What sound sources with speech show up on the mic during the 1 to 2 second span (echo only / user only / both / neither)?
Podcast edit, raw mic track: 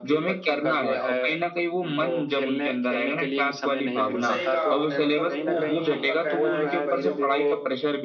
echo only